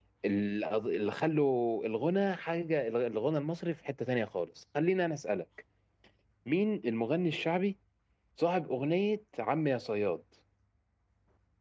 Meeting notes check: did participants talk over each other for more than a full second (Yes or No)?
No